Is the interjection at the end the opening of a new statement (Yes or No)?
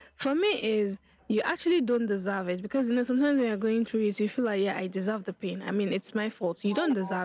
No